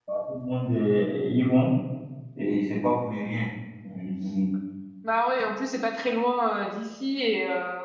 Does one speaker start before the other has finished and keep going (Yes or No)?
No